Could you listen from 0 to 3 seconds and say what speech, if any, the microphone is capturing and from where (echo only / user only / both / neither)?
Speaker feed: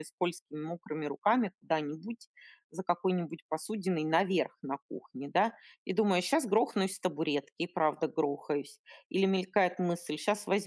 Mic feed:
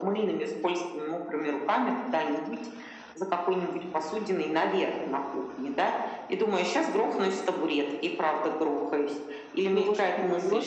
echo only